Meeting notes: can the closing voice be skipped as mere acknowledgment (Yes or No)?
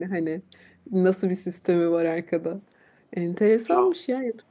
Yes